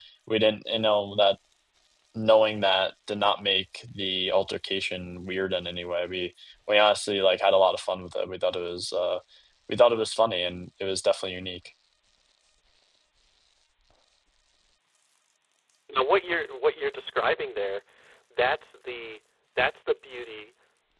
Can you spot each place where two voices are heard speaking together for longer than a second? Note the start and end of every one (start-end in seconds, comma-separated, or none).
none